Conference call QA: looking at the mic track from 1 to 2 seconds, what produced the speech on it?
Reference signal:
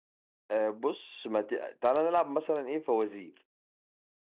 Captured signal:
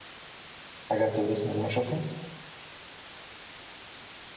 user only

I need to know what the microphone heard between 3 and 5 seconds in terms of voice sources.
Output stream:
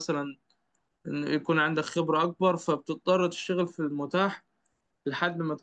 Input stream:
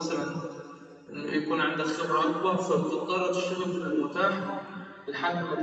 echo only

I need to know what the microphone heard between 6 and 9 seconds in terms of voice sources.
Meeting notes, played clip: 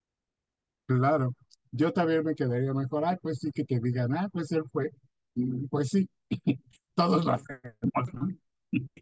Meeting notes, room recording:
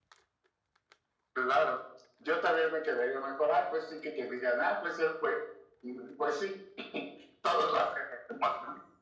echo only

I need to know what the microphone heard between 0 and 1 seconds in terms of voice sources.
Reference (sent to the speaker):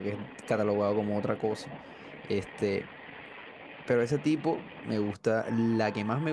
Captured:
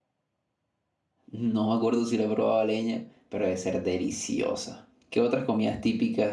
neither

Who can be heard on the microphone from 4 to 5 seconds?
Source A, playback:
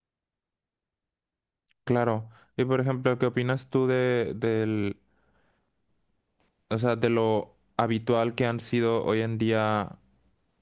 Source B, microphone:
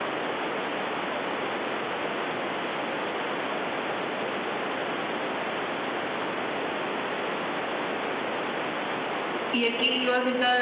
neither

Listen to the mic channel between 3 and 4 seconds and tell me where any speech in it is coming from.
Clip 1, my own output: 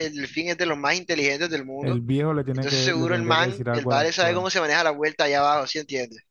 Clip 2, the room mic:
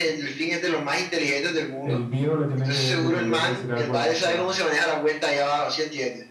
echo only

